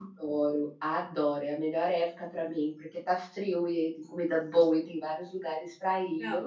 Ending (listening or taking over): taking over